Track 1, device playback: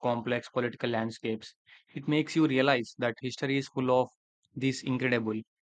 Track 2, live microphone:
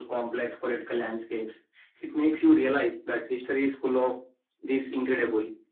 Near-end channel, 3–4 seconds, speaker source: echo only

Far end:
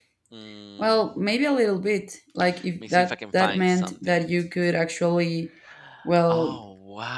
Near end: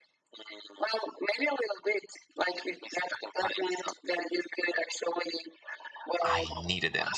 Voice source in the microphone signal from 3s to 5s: echo only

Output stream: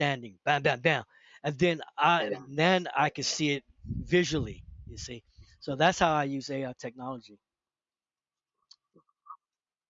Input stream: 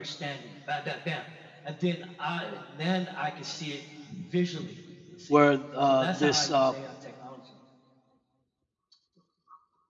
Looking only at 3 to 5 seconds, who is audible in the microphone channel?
echo only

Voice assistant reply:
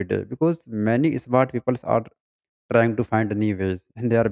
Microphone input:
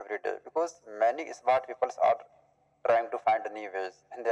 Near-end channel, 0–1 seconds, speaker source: echo only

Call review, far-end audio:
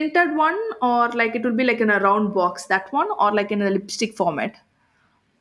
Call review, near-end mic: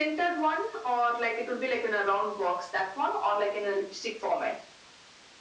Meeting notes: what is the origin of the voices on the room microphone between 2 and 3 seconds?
echo only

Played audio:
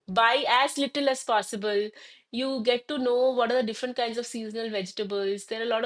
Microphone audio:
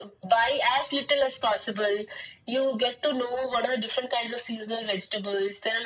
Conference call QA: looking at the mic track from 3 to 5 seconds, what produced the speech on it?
echo only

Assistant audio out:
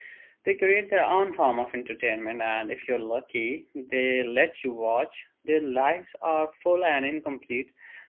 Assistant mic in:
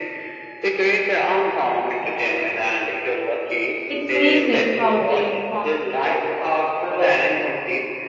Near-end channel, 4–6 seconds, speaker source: both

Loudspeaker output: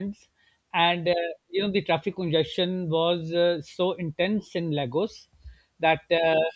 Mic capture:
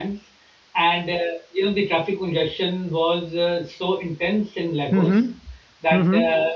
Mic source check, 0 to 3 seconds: echo only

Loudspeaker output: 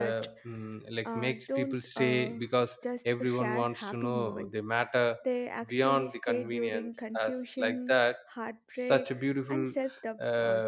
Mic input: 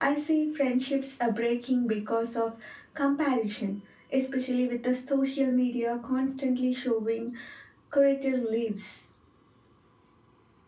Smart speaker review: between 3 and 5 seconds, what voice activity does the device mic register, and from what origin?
user only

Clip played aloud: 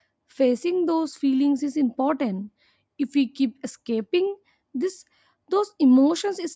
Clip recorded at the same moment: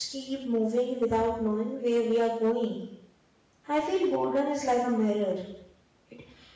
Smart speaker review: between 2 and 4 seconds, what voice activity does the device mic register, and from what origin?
user only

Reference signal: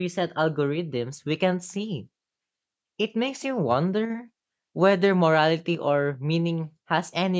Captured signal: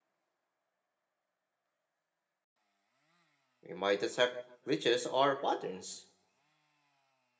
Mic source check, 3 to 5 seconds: user only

